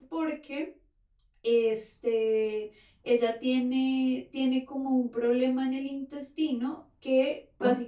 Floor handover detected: No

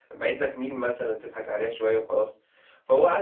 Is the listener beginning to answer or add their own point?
No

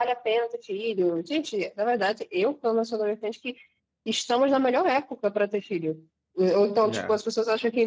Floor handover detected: No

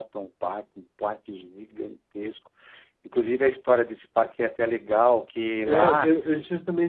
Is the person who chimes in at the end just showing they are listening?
No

